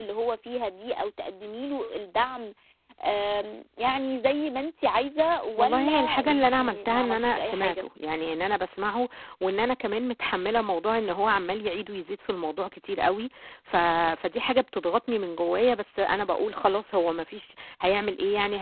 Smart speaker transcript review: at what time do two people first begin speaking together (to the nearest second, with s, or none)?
6 s